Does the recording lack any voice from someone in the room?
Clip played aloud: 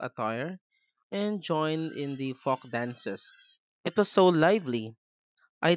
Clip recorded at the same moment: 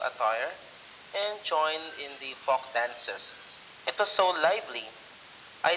Yes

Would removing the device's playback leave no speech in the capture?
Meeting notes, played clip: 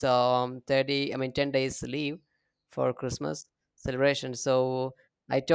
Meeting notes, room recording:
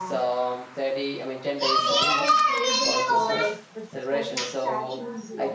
No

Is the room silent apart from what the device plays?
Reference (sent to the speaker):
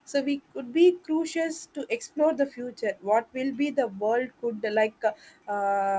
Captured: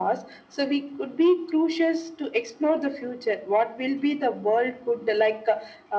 Yes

